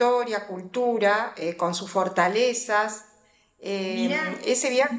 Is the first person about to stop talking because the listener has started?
No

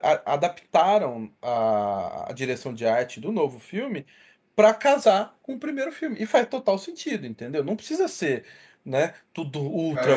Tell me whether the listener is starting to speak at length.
Yes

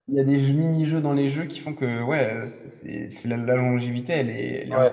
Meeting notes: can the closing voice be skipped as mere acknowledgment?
No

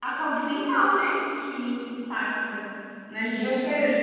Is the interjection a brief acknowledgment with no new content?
Yes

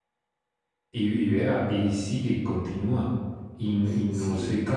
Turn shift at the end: No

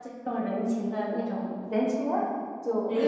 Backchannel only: No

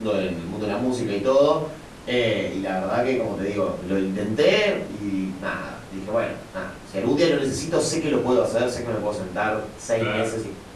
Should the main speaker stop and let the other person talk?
No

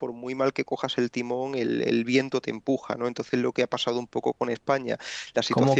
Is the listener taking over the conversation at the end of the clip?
Yes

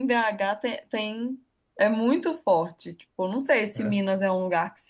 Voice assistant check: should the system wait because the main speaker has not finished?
Yes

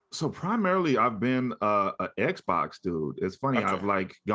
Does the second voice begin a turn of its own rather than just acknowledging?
No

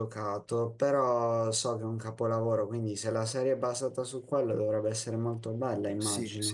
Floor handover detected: Yes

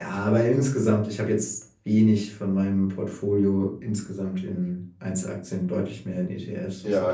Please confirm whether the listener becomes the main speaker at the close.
Yes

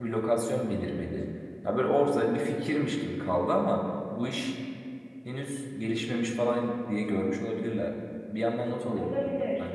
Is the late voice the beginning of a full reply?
Yes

